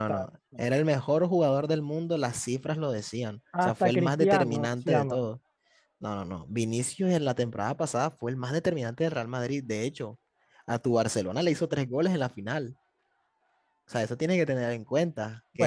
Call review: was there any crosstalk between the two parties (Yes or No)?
Yes